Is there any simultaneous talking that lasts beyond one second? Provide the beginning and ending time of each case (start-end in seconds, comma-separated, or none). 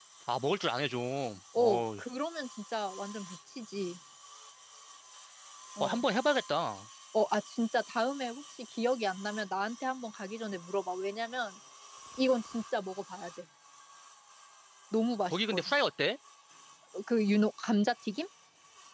none